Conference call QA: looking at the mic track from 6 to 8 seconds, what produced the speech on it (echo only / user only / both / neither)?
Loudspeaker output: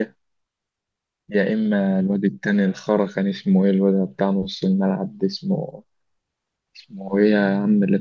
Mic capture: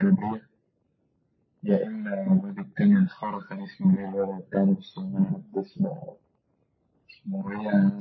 echo only